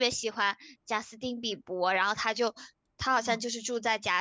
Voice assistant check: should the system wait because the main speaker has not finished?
Yes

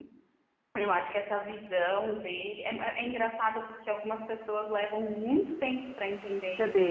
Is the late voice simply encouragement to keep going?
No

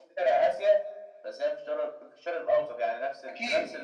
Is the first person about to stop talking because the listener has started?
No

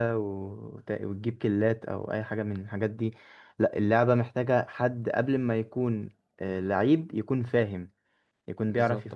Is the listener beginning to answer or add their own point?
No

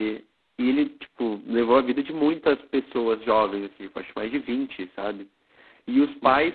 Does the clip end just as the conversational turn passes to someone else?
No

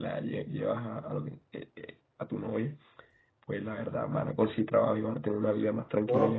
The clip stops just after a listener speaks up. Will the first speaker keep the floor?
No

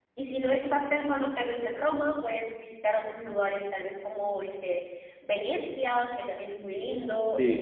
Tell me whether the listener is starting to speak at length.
Yes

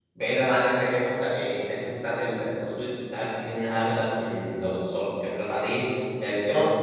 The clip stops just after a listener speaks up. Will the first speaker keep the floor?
Yes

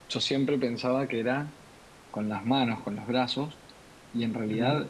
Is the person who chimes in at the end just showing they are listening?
Yes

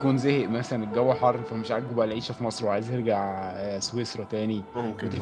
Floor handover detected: No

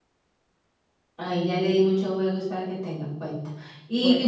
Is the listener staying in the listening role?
Yes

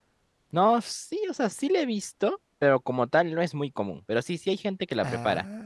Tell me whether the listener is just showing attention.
Yes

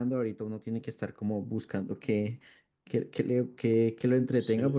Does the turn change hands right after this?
Yes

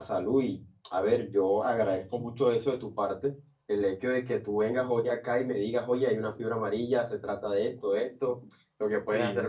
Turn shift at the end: No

